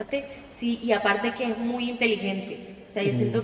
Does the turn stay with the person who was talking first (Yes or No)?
Yes